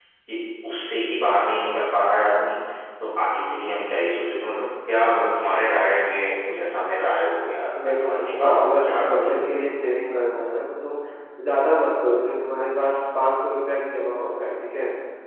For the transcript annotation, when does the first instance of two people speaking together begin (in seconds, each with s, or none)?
7.8 s